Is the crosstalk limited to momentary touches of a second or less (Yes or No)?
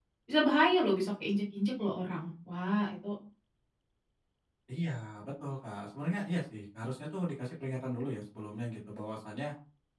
Yes